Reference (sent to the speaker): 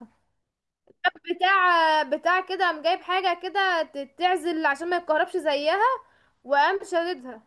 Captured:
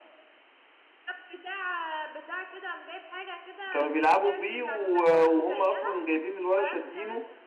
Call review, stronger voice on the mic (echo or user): user